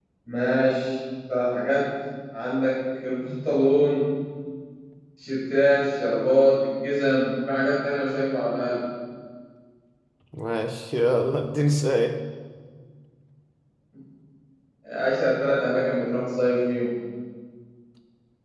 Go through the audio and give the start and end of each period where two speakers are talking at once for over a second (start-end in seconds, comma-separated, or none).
none